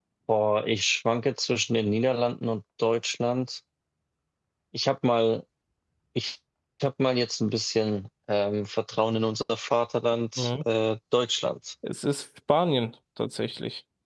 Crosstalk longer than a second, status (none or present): none